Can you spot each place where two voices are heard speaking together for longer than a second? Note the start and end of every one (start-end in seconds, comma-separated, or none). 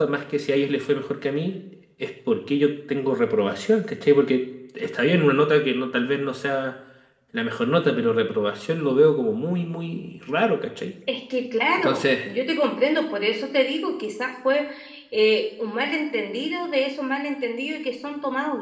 none